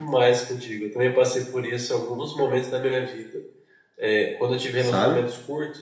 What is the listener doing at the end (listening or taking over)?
listening